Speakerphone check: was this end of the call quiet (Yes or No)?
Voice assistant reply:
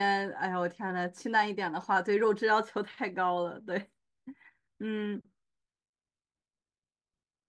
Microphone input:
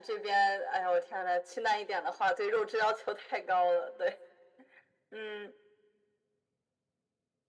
Yes